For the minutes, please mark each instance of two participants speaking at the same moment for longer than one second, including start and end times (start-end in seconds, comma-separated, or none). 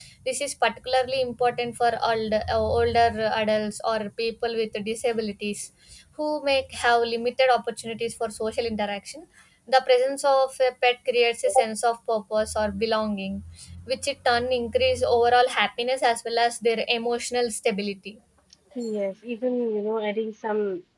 none